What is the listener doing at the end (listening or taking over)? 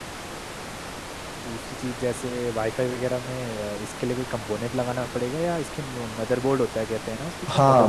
taking over